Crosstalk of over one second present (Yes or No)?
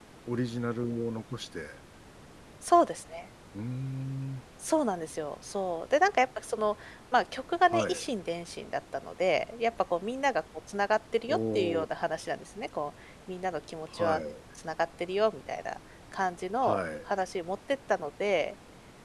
No